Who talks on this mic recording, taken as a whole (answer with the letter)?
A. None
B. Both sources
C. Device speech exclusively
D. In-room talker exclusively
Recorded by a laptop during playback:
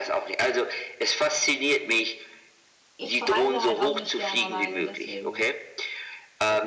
B